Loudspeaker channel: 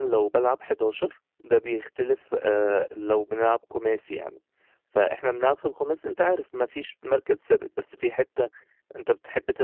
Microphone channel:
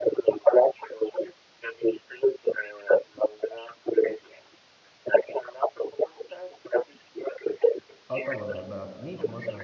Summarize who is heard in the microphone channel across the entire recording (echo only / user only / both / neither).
both